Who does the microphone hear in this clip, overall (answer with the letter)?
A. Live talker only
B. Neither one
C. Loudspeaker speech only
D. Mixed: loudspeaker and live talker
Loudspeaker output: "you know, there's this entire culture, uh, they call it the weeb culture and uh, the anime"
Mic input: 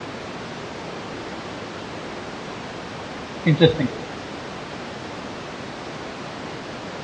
A